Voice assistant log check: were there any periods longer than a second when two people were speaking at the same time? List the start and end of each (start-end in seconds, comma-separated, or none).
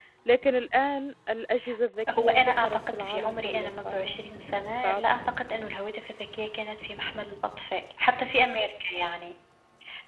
2.2-4.2